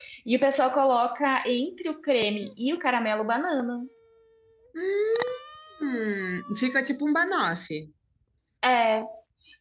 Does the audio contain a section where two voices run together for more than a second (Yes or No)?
No